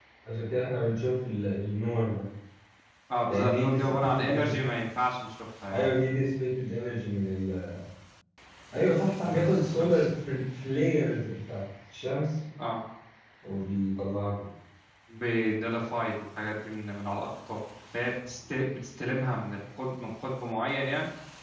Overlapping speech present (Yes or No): Yes